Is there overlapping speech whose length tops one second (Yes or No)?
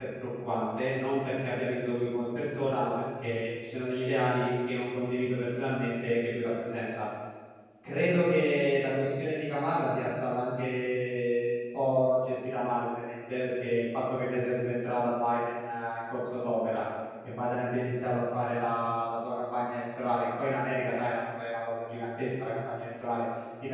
No